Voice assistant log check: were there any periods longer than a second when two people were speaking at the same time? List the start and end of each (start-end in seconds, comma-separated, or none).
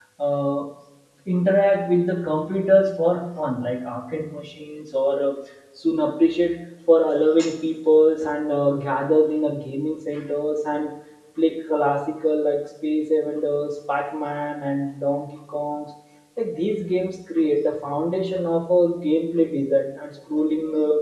none